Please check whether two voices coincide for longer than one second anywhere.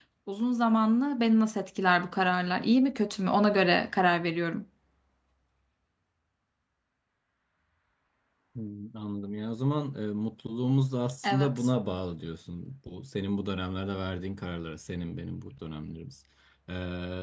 No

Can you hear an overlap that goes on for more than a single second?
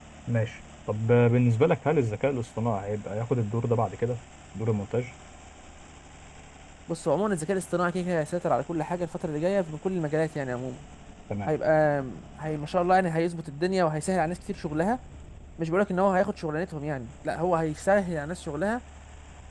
No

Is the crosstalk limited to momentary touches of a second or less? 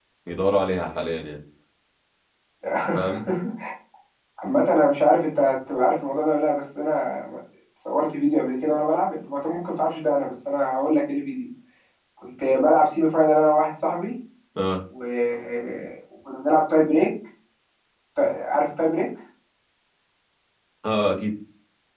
Yes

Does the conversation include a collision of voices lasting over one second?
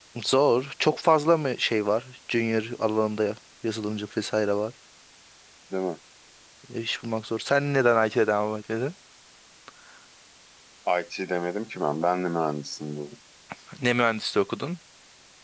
No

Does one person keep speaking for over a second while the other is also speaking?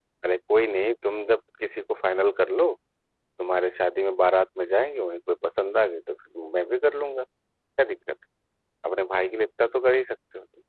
No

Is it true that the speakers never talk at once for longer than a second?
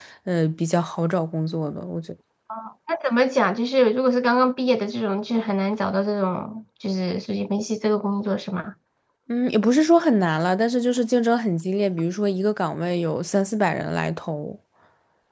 Yes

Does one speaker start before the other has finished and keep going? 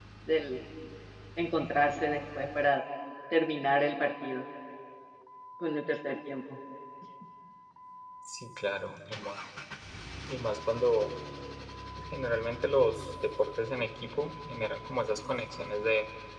No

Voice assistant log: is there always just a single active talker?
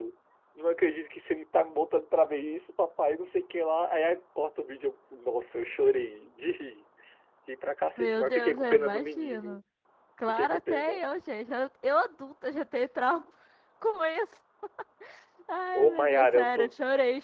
No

